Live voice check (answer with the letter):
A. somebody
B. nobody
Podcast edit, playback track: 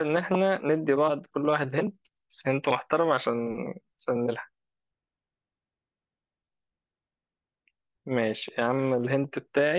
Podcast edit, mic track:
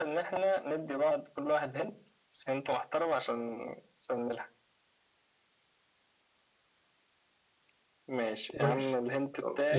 A